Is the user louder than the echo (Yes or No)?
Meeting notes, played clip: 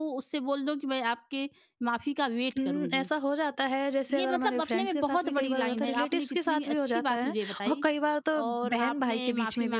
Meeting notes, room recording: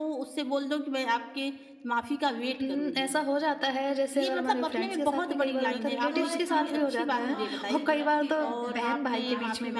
No